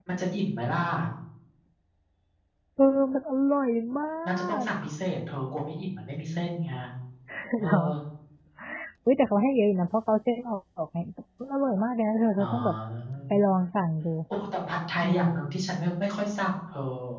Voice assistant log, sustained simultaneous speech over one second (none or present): none